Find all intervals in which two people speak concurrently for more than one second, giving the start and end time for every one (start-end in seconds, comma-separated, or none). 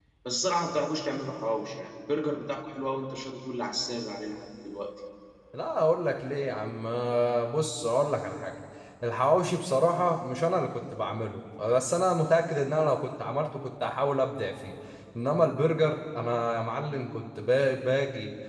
none